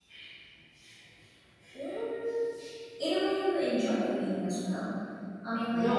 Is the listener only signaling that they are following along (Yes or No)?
Yes